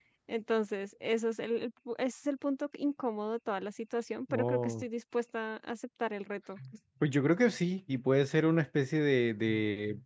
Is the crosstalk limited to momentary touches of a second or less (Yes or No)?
Yes